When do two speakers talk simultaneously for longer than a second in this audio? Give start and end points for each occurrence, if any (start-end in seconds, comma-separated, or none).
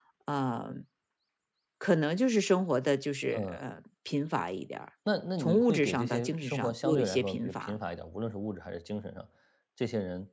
5.4-7.8